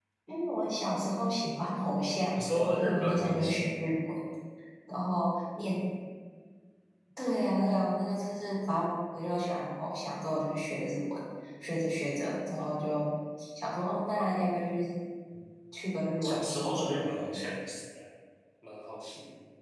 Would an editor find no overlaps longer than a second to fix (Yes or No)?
No